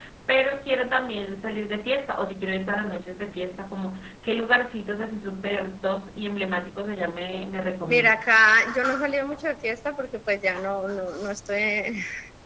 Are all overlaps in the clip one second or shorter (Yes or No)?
Yes